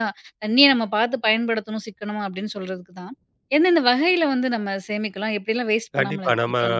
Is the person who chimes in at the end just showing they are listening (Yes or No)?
No